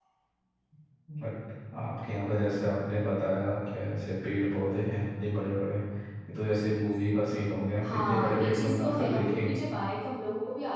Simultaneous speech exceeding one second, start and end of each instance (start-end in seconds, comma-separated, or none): 7.8-9.6